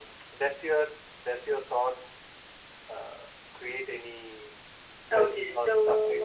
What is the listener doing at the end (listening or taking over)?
taking over